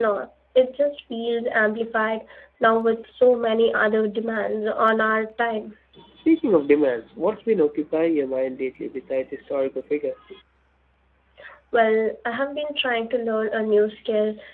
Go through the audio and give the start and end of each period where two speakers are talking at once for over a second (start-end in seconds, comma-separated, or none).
none